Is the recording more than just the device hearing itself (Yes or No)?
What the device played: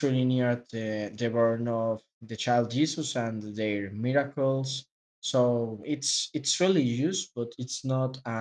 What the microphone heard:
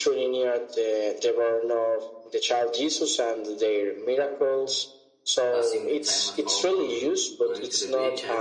Yes